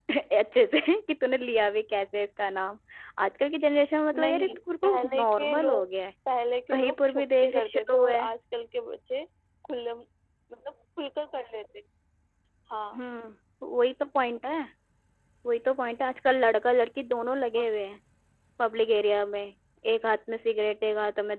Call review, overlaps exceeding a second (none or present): present